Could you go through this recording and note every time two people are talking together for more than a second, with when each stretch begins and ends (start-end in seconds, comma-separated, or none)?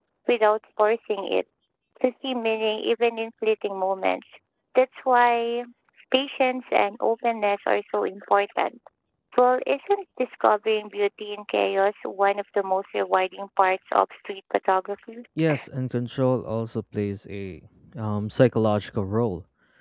none